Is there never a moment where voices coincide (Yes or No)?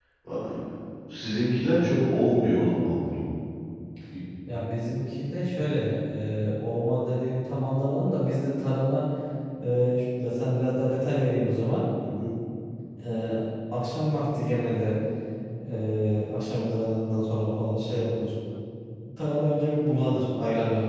Yes